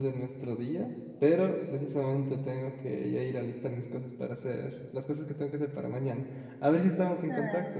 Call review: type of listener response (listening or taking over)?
taking over